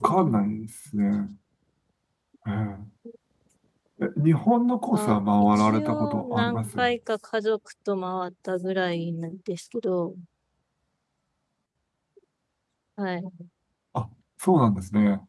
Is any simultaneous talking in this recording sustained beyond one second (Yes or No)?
Yes